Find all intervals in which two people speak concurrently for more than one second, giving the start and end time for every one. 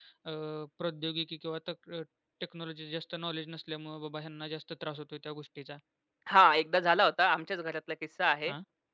none

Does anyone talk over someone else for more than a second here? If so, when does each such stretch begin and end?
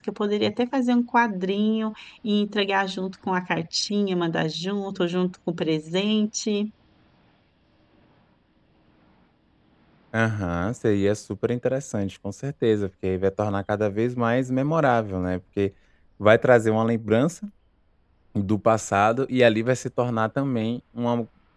none

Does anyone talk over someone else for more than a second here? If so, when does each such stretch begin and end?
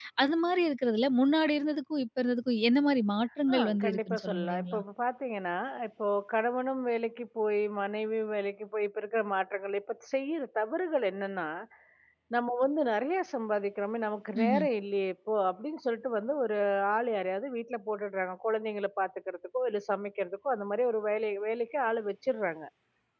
3.5-4.8

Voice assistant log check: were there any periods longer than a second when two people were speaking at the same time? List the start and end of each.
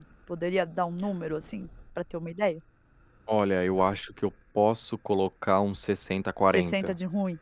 none

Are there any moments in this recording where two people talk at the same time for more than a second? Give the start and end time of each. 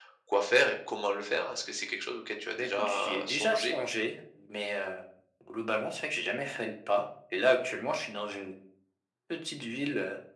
2.5-3.8

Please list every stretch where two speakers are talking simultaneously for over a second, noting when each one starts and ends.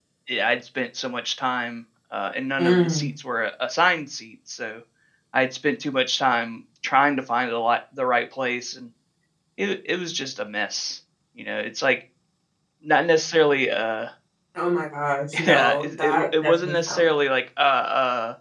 15.5-17.0

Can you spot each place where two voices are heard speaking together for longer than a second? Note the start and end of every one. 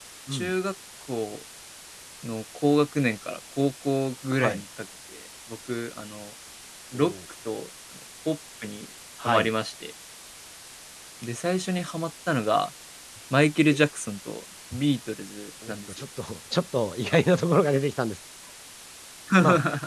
none

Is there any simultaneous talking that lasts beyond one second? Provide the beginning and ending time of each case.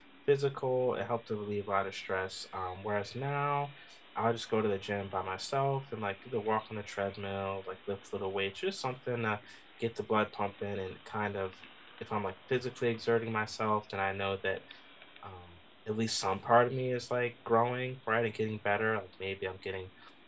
none

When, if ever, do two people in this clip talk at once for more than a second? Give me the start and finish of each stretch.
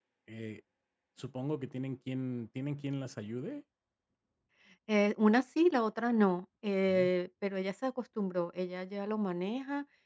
none

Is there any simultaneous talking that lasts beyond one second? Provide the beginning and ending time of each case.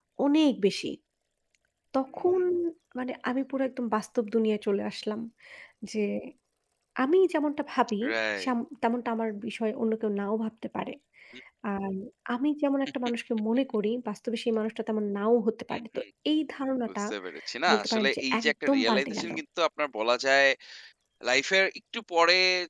17.7-19.3

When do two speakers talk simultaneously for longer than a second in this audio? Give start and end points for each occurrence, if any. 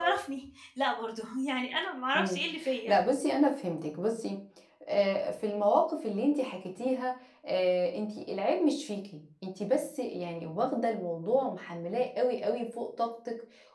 none

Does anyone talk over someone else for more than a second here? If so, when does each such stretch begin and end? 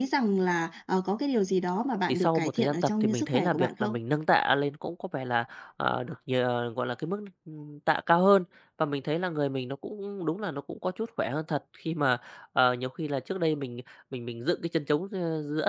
2.1-4.0

